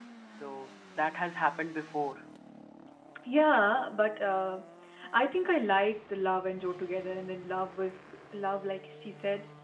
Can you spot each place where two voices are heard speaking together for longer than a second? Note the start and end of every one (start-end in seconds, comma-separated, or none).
none